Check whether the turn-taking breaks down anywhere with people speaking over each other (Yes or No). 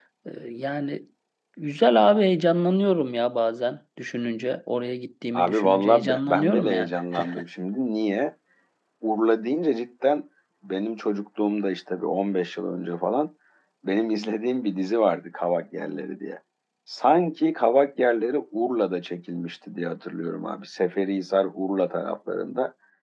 Yes